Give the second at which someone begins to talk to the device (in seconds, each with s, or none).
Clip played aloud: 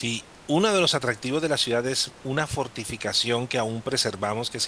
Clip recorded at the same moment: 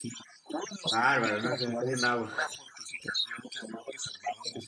0.9 s